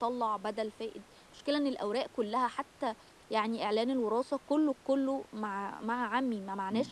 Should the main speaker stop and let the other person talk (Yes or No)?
Yes